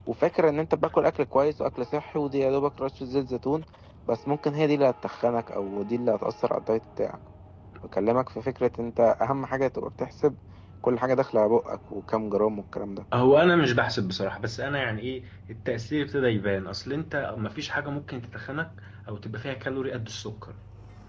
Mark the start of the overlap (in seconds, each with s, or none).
none